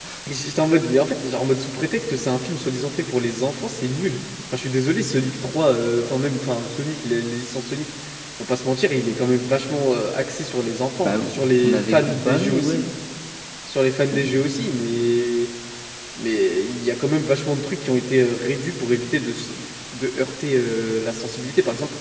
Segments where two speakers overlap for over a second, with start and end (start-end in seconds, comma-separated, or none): 11.6-12.8